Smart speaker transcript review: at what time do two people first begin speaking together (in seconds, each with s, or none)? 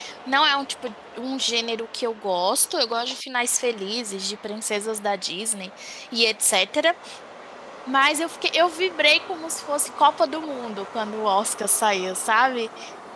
none